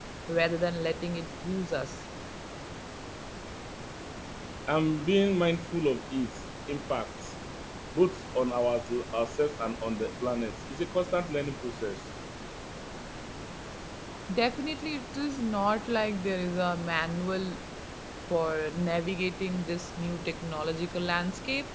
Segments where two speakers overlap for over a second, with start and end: none

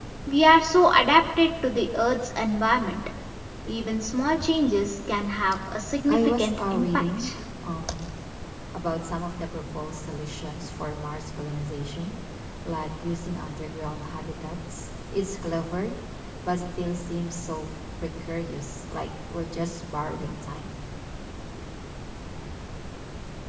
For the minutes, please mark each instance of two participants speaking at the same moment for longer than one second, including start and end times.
6.1-7.3

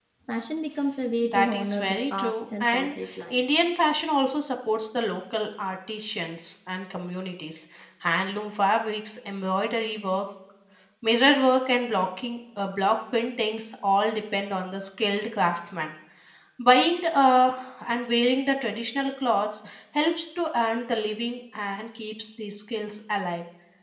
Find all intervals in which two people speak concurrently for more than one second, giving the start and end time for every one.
1.3-2.9

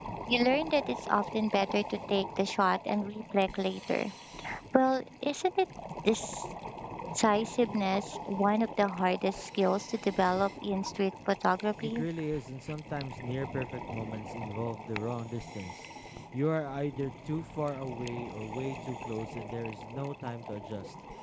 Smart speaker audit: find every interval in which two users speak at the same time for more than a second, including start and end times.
none

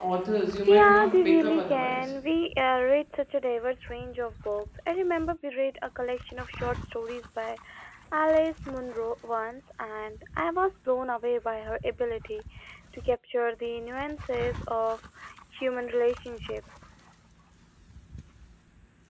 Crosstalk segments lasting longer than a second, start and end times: 0.7-2.1

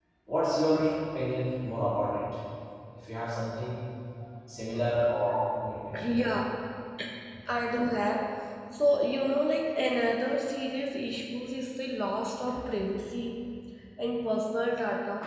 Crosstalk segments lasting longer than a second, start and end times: none

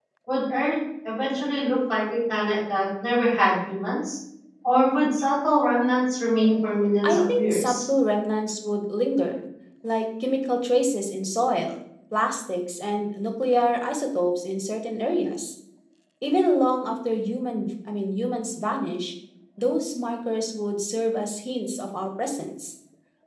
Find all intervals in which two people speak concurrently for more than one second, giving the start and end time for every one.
6.4-7.8

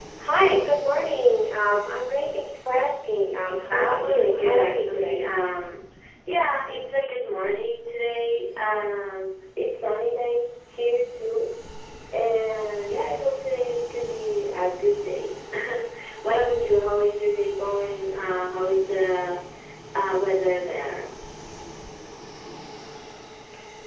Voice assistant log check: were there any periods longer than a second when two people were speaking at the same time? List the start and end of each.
3.7-5.3

